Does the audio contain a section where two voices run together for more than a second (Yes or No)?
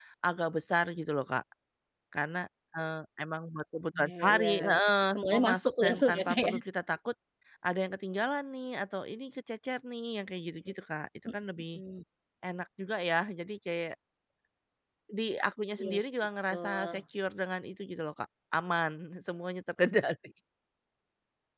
Yes